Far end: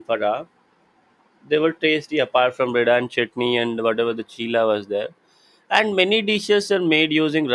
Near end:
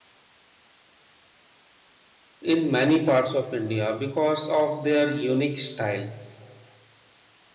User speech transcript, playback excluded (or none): in many parts of India because of their unique style.